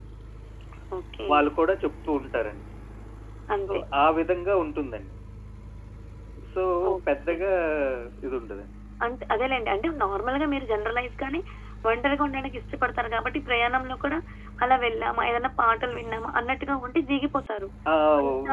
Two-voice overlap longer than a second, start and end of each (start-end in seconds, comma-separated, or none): none